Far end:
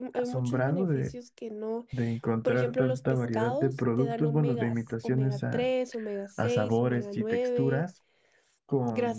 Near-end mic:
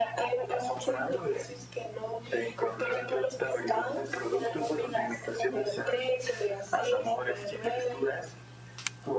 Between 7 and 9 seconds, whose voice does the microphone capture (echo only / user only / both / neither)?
echo only